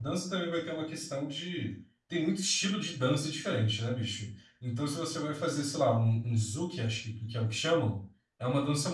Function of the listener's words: listening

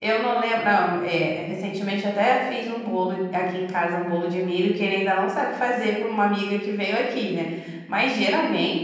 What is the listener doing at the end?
listening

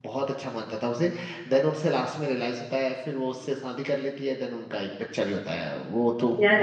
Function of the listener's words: taking over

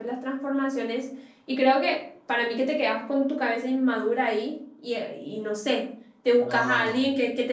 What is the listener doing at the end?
listening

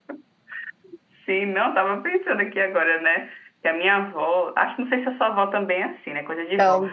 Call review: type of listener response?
listening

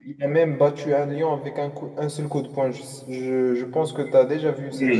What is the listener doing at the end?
taking over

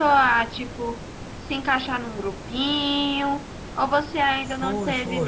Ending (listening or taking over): taking over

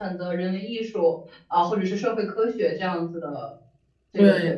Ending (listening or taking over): taking over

